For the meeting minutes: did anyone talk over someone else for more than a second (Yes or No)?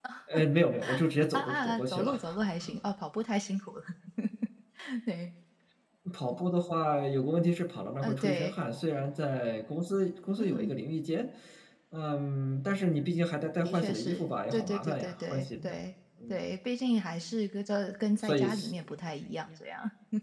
Yes